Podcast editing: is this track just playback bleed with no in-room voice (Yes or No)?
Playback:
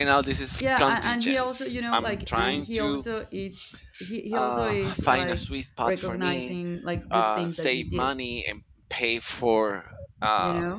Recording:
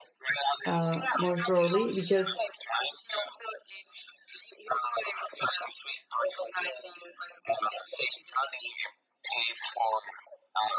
No